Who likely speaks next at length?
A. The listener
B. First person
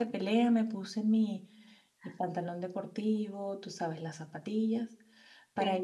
B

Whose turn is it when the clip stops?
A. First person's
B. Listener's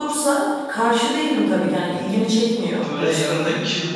B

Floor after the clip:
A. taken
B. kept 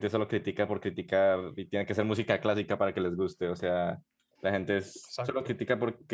B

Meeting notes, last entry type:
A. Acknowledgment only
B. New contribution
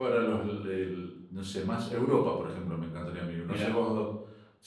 A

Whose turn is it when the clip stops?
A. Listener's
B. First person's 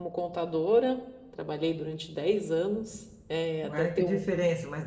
A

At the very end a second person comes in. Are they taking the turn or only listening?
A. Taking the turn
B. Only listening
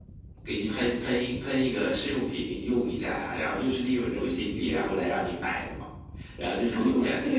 A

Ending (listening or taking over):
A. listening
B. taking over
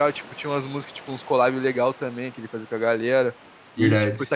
A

